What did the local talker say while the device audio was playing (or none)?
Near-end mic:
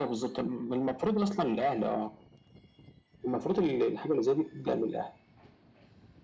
none